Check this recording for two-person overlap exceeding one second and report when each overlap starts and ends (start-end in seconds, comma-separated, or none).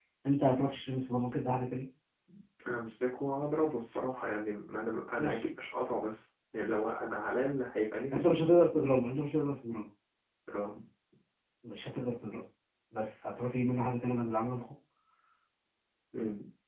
none